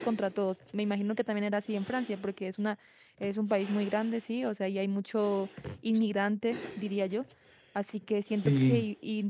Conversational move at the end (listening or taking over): listening